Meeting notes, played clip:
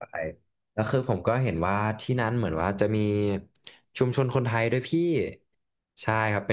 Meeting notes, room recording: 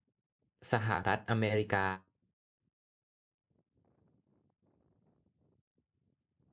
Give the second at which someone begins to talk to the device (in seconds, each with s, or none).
0.7 s